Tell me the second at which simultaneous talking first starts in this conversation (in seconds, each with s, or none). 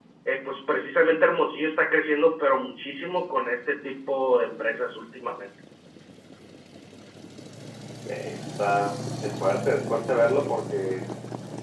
none